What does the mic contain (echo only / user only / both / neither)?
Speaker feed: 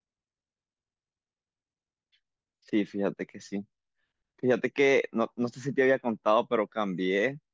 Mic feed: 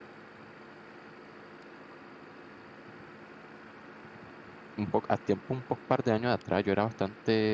user only